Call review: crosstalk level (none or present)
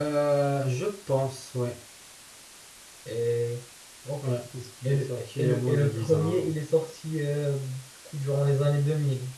present